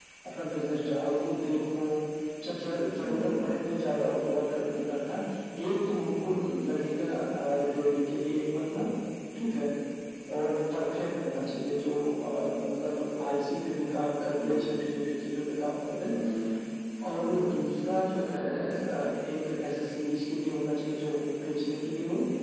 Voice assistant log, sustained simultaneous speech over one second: none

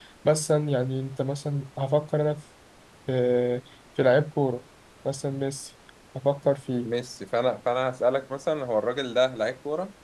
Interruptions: none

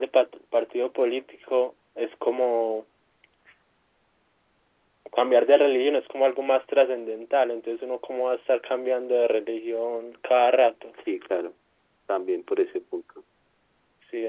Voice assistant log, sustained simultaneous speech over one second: none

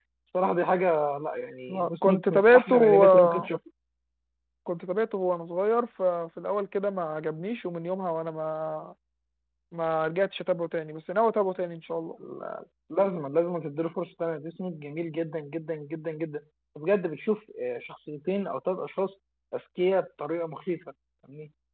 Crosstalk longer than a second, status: present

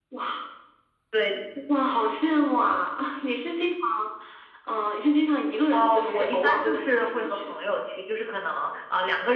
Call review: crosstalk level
present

